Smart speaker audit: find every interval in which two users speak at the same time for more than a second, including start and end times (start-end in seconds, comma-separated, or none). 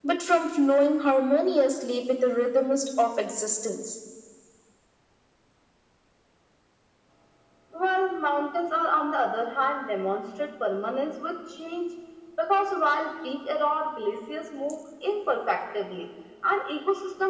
none